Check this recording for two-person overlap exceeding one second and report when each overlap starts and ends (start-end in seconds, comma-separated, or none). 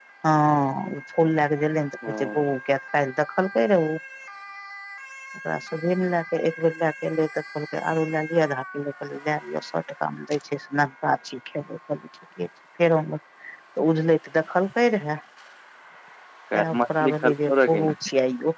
16.6-17.9